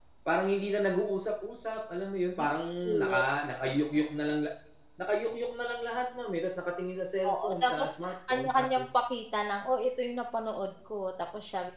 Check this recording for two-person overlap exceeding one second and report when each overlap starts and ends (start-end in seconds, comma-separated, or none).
7.3-8.9